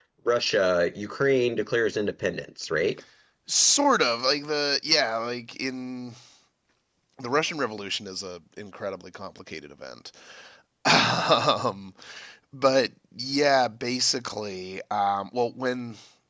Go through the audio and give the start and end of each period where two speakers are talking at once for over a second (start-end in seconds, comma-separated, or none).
none